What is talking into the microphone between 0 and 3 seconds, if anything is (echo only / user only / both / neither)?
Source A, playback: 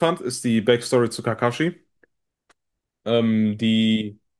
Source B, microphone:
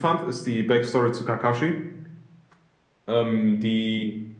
echo only